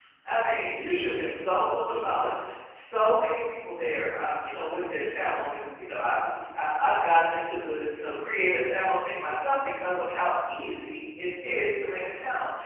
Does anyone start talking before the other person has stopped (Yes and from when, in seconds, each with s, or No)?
Yes, from 0.6 s